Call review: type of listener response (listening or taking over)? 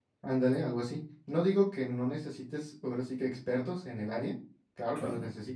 listening